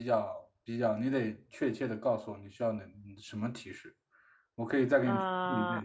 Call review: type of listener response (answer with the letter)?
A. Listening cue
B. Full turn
A